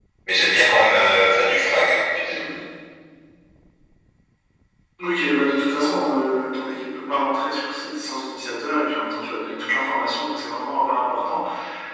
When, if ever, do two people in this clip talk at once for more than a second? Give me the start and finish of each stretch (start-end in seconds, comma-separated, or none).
none